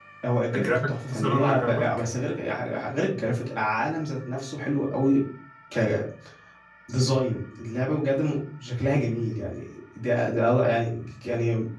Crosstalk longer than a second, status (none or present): present